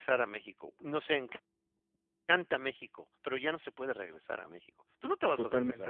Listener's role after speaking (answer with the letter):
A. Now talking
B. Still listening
A